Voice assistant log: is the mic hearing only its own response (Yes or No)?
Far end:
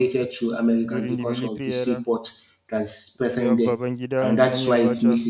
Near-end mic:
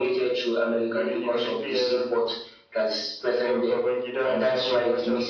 Yes